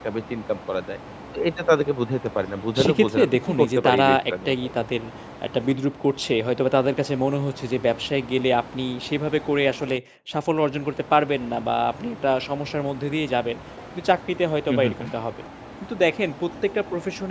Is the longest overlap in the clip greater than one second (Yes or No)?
Yes